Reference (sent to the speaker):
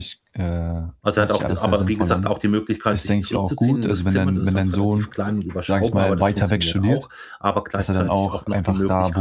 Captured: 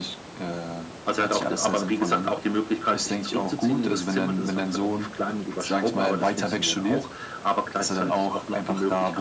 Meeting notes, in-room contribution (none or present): none